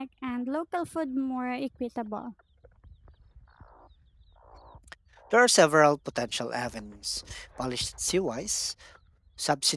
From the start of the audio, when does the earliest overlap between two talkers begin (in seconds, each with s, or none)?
none